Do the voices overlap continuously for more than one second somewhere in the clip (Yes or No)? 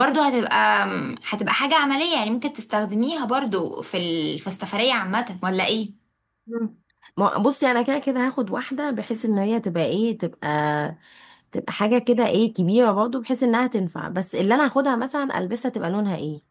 No